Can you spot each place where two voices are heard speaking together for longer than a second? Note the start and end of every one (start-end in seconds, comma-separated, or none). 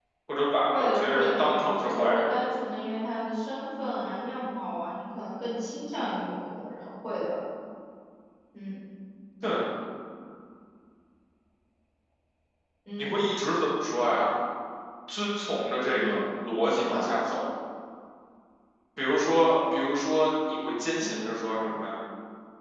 0.7-2.3